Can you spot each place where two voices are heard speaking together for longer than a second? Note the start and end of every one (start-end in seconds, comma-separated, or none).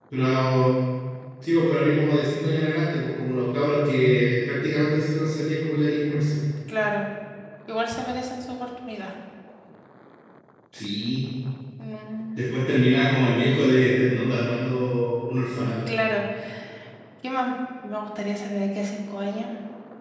none